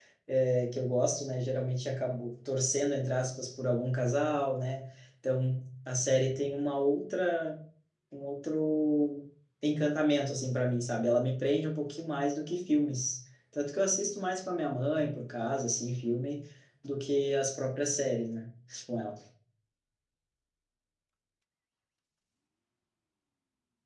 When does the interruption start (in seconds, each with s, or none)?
none